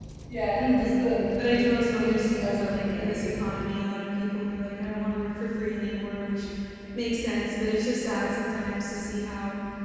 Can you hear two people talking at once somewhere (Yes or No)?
Yes